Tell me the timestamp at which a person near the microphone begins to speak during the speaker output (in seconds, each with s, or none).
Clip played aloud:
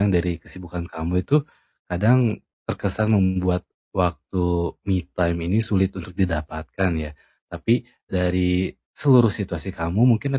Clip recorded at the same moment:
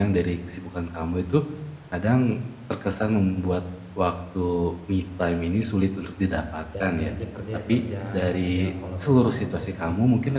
6.7 s